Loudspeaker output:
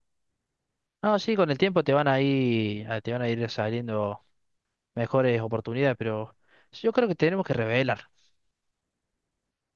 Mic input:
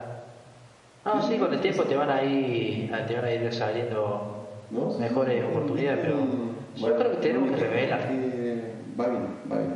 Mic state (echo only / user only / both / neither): both